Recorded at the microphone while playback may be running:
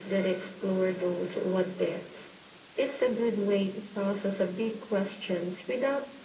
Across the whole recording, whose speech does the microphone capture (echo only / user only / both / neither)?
echo only